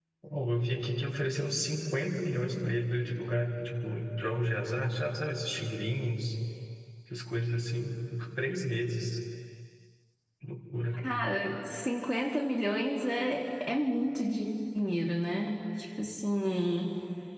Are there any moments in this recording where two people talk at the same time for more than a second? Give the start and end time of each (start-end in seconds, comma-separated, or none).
none